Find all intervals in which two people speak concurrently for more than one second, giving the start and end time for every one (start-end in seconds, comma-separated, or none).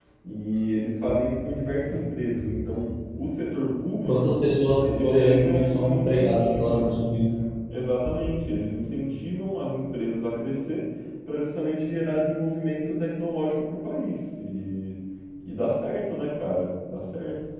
4.8-7.0